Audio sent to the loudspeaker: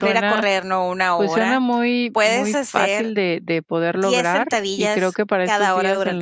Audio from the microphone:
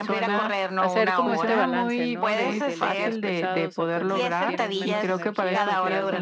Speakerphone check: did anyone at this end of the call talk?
Yes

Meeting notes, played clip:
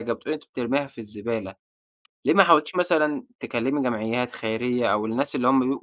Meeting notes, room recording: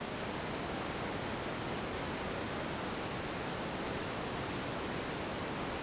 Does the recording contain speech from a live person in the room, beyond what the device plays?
No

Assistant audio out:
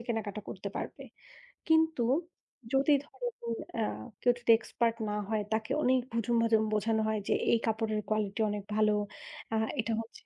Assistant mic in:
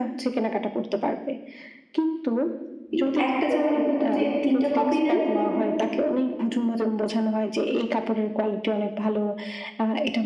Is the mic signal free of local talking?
No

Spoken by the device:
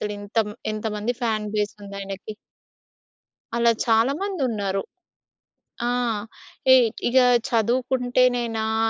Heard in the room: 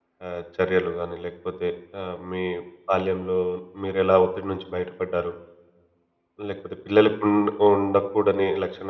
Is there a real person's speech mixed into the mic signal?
Yes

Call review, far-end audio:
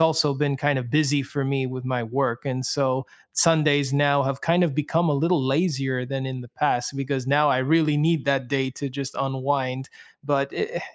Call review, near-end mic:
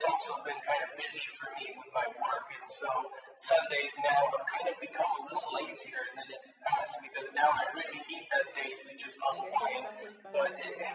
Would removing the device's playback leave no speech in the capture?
No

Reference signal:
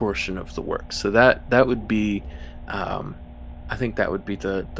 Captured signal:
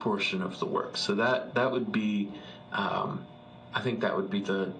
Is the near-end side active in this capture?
No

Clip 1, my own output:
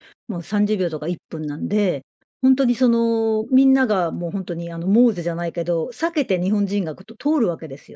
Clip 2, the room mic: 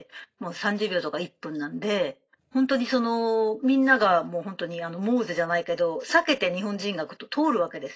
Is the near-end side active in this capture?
No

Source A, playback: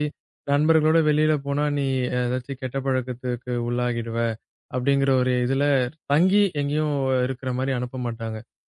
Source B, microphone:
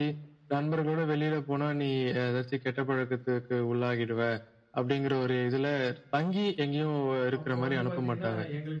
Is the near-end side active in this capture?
Yes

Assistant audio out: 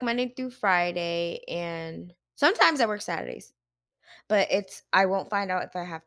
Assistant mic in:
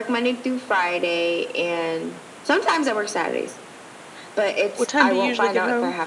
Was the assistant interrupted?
Yes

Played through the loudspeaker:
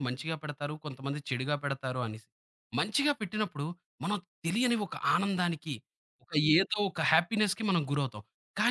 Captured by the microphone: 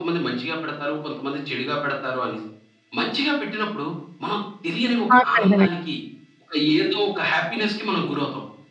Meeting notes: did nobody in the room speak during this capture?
No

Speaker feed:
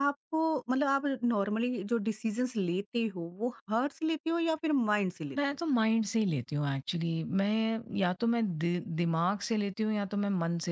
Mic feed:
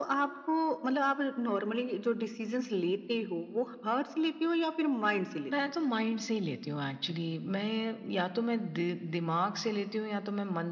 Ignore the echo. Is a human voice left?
No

